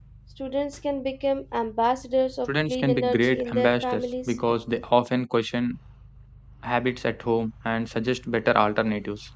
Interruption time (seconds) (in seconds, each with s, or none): 2.7 s